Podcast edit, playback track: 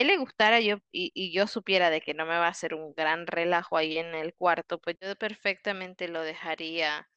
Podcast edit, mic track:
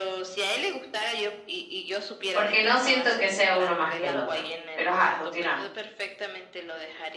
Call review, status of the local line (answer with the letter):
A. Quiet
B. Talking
B